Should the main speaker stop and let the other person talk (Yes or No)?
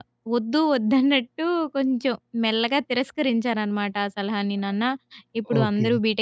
No